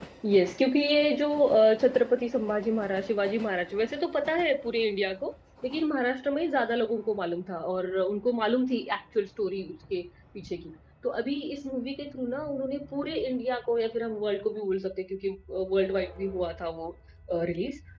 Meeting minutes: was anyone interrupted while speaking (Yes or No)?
No